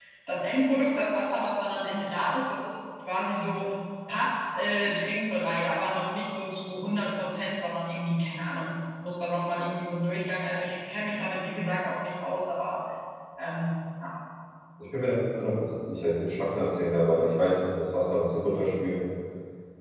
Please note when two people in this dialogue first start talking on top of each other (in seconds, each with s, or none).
none